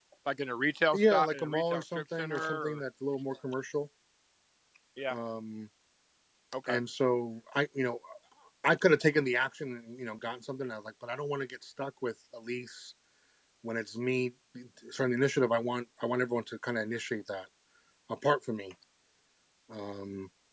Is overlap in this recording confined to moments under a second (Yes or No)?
No